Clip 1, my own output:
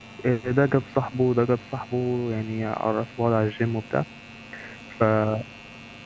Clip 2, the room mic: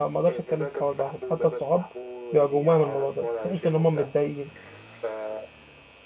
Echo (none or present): present